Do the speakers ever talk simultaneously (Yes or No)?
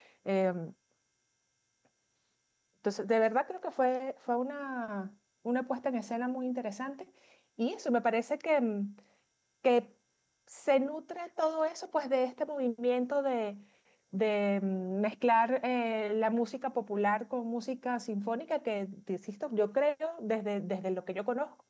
No